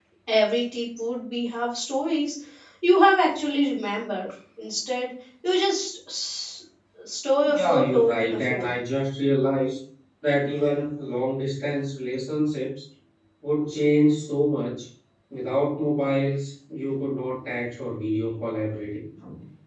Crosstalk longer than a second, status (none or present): present